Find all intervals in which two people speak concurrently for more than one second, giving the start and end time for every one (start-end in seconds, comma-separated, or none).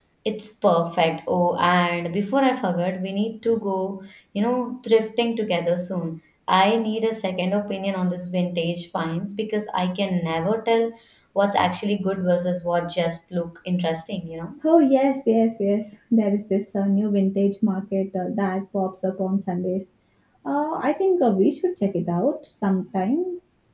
none